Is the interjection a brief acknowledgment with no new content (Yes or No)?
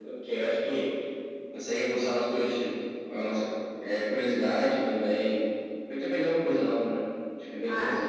No